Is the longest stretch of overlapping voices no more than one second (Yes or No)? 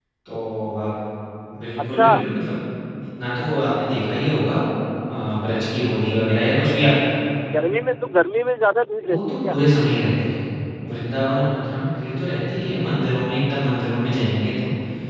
Yes